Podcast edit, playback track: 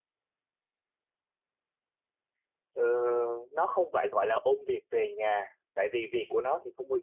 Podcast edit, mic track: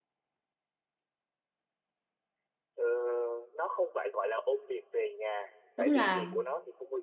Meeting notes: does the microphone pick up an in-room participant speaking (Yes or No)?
Yes